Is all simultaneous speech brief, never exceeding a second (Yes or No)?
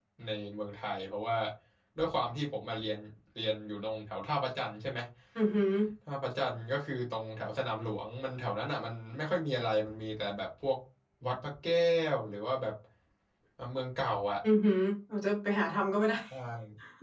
Yes